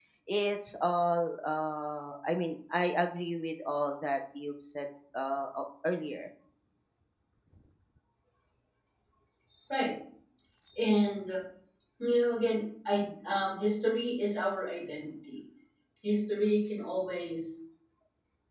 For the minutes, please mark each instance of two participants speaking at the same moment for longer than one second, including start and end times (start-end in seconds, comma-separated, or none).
none